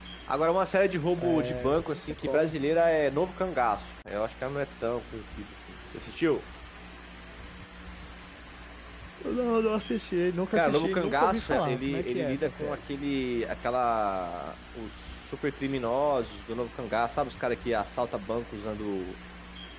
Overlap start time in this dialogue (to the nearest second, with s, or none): 1 s